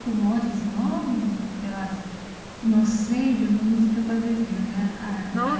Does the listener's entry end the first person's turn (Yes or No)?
Yes